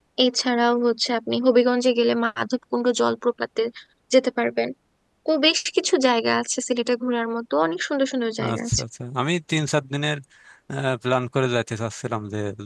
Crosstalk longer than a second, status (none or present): none